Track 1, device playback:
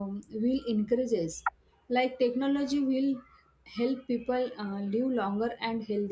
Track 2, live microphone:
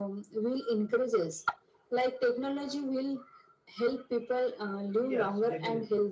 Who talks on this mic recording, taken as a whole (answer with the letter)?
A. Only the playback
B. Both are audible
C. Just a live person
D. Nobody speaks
B